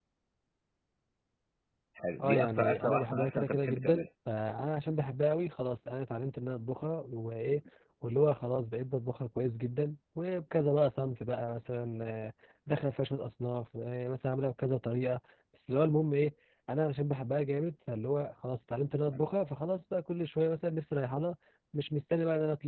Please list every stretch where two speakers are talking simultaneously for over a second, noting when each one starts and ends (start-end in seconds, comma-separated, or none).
2.2-4.1